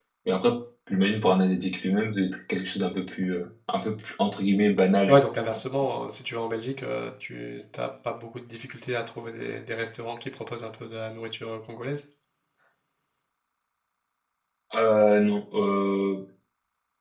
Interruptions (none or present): none